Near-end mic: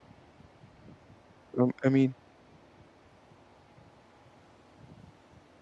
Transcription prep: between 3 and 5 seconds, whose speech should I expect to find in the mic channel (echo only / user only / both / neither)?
neither